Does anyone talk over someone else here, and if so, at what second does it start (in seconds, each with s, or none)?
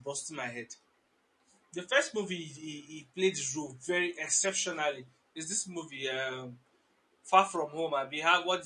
none